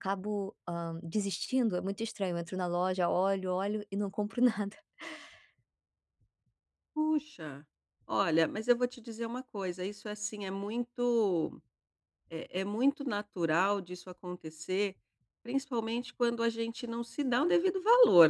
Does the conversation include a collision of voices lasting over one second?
No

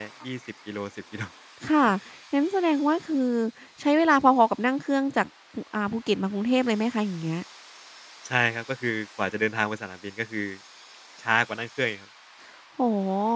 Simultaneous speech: No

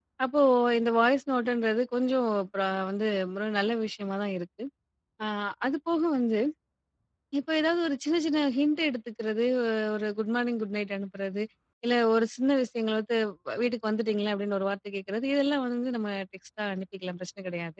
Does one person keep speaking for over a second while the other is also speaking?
No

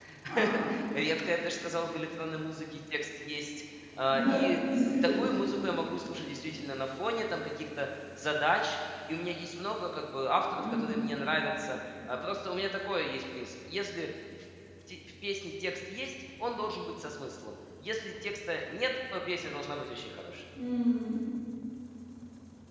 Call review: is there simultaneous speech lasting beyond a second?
No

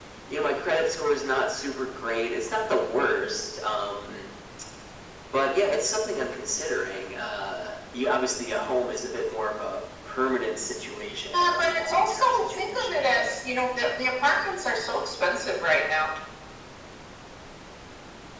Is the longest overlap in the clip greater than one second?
Yes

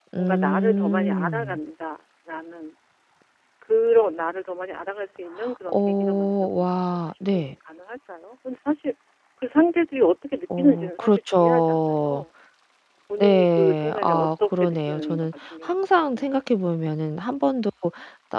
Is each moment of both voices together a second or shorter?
No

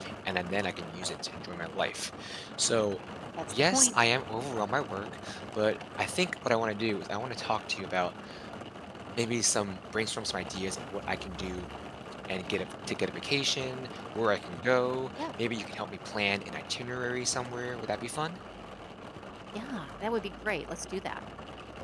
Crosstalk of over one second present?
No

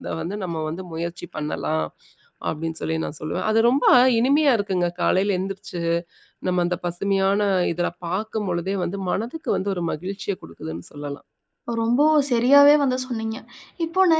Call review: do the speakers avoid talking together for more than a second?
Yes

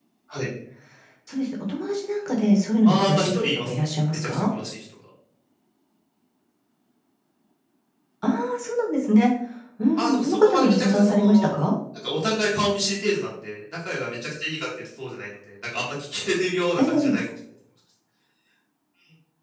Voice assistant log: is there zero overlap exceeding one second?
No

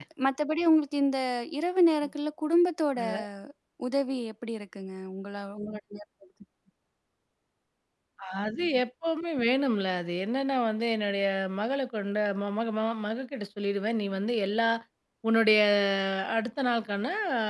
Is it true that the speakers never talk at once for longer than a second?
Yes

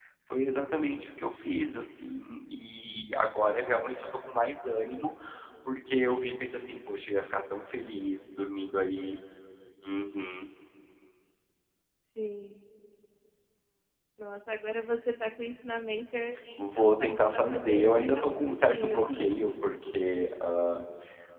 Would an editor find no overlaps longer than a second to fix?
No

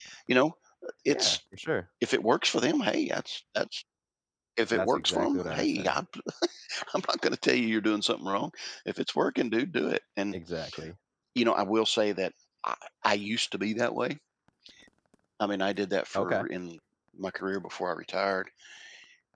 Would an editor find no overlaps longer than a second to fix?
No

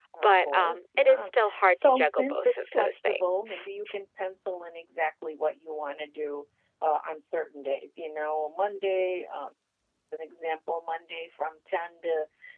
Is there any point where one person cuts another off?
Yes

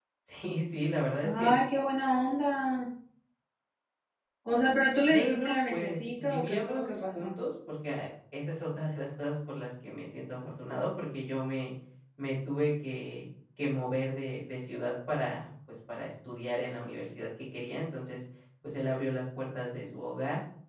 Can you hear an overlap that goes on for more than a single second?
Yes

